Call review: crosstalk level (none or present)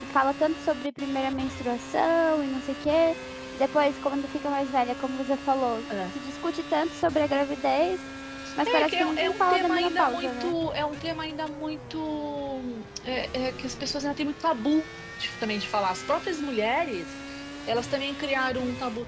present